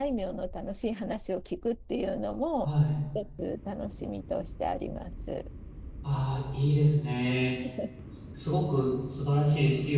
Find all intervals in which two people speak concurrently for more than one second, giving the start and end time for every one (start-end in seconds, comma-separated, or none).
none